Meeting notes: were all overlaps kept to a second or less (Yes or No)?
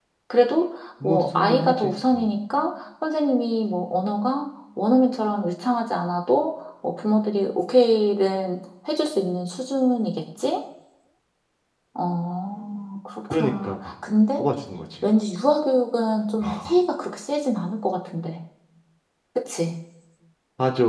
No